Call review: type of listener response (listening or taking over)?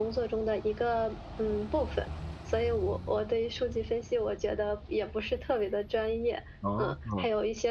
listening